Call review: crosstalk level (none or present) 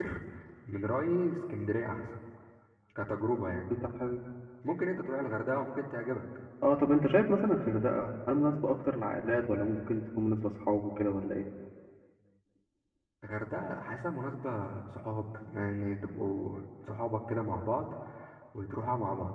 none